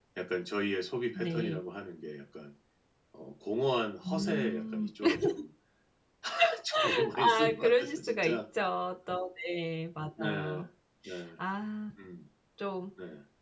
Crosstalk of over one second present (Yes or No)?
Yes